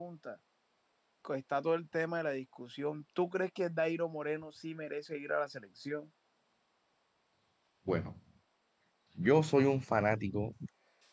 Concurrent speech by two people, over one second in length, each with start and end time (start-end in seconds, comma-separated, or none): none